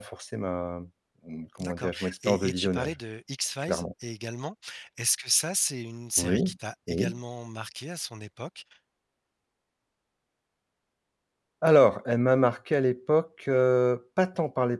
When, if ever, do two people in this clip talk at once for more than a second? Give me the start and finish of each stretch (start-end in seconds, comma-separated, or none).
1.6-3.0